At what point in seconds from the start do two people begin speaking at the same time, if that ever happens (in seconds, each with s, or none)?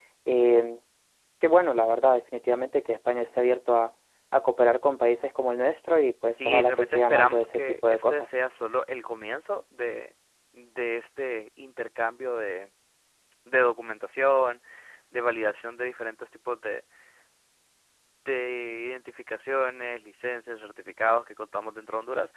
6.4 s